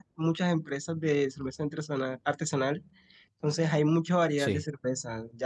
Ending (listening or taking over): listening